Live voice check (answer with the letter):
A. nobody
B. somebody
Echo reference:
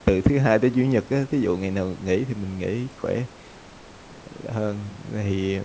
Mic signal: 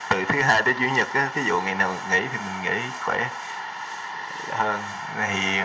A